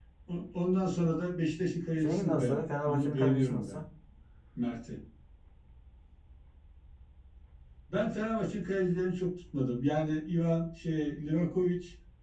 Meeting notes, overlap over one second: present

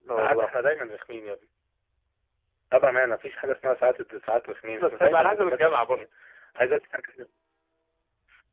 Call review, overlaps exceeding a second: present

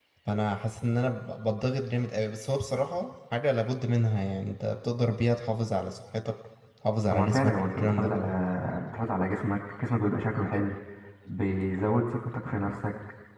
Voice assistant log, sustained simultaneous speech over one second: present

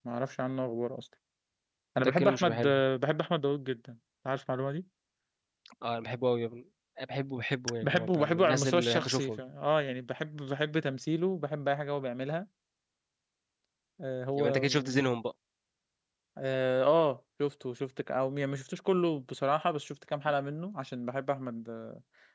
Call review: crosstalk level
present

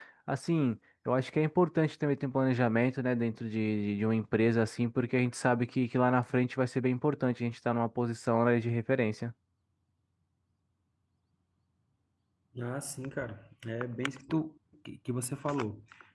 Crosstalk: none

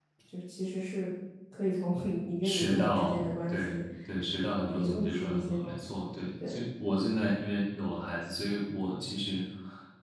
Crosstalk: present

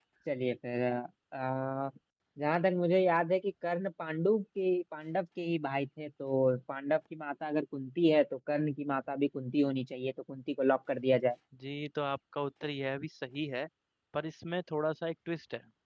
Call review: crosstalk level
none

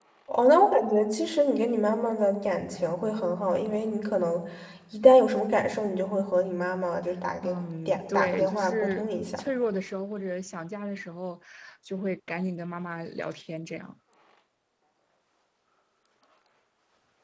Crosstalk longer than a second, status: present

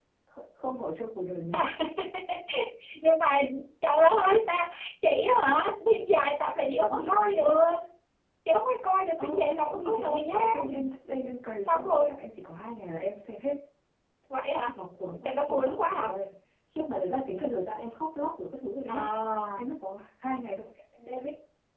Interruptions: present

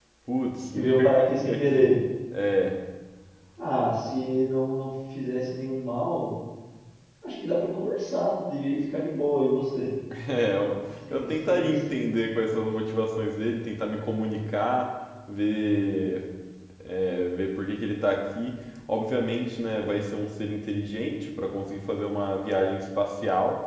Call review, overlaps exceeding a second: present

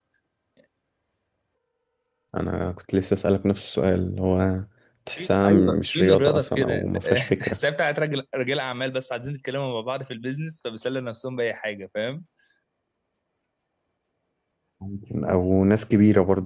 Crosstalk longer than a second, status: present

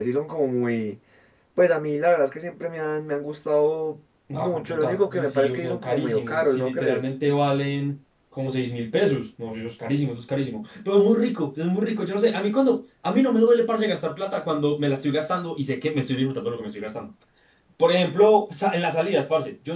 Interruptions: present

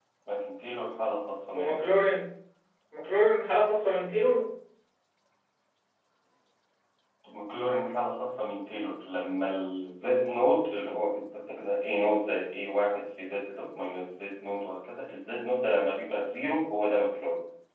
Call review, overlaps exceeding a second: none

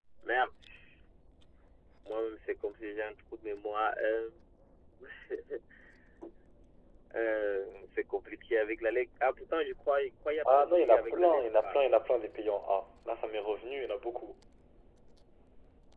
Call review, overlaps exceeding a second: present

